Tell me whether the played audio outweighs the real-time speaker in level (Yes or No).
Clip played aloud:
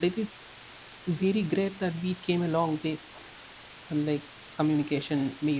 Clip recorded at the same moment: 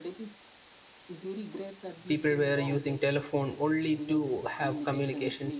No